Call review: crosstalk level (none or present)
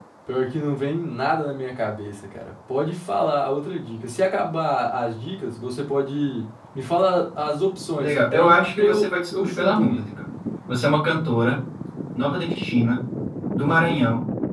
present